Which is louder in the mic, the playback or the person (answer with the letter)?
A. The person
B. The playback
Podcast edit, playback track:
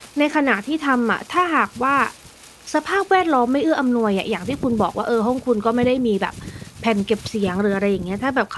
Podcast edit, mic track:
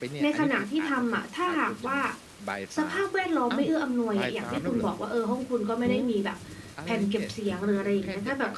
B